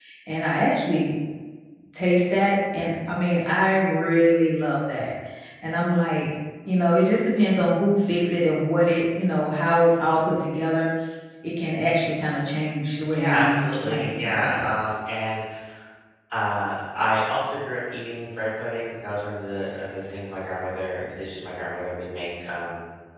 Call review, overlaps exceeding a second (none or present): present